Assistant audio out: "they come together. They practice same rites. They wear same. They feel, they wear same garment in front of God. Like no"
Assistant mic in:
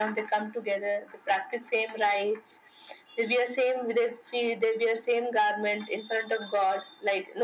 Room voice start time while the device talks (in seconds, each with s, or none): none